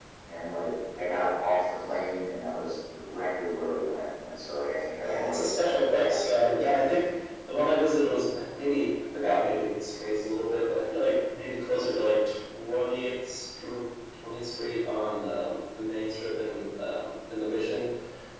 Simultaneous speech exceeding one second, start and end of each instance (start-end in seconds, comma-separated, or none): 5.0-6.6